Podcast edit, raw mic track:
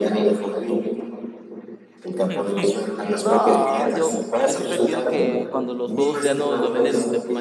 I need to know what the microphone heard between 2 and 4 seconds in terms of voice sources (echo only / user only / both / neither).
both